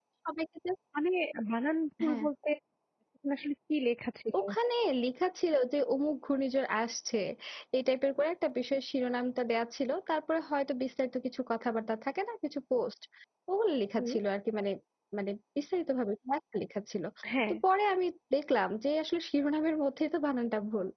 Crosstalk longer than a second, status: none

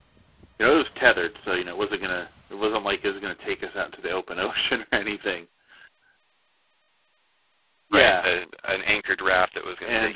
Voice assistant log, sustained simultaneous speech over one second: none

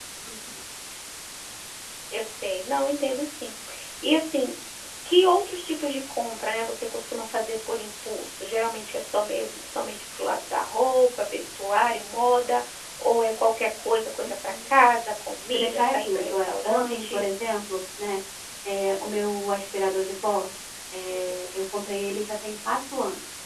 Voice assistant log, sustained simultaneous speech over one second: present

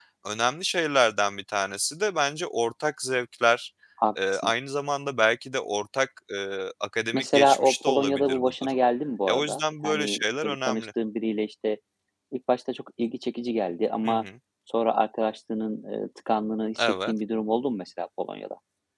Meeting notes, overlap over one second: present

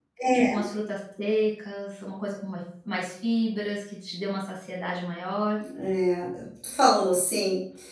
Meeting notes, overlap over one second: none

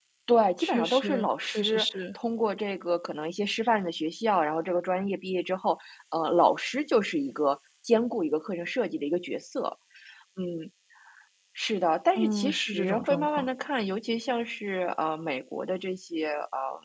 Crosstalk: present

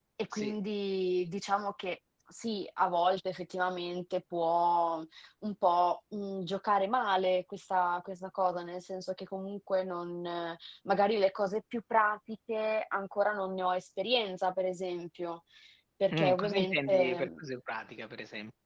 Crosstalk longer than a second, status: present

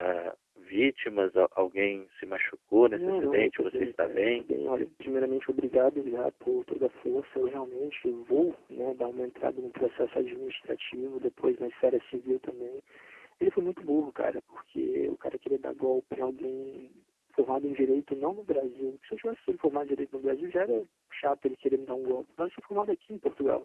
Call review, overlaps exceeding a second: present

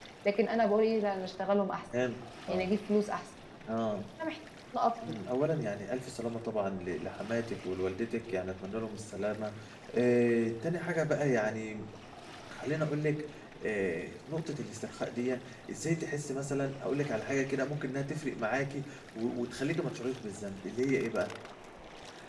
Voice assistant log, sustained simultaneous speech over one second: none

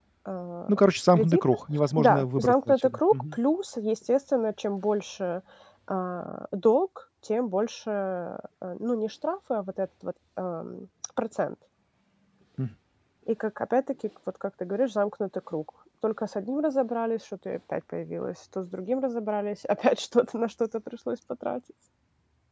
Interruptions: present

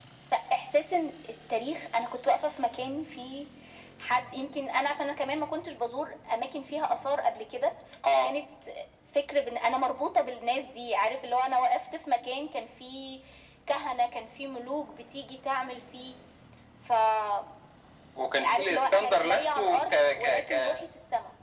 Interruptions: present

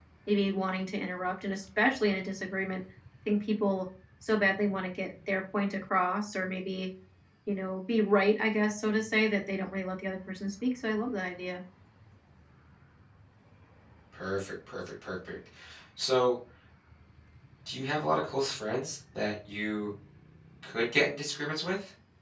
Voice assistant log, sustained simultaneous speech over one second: none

